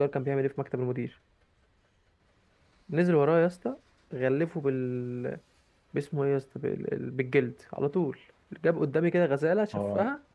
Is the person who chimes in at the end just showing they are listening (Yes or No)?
Yes